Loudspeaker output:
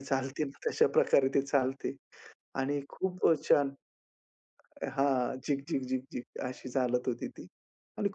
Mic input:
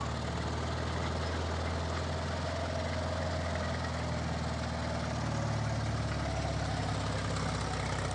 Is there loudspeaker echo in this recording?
No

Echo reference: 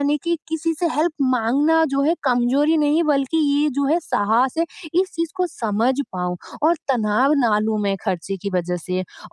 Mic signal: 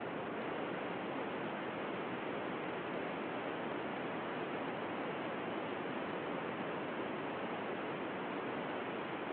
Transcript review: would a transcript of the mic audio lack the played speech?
Yes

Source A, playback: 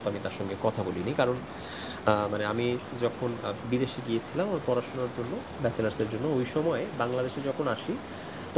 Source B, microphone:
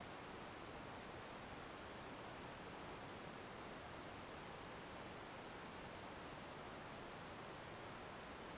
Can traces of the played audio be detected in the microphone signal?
No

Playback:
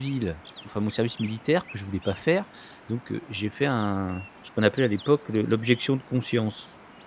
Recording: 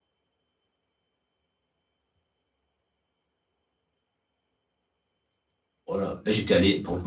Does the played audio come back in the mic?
No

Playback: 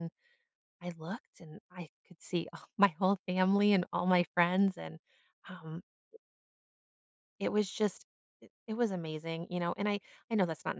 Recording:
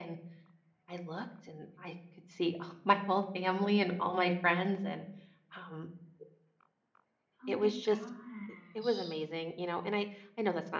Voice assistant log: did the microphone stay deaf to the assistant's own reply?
No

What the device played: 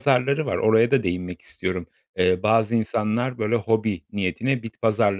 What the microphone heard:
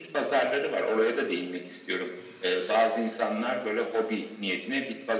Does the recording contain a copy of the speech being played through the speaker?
Yes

